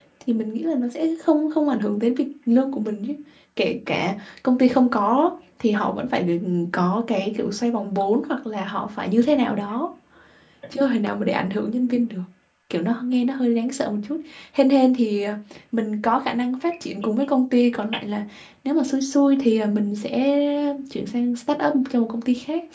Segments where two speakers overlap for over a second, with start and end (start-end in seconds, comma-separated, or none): none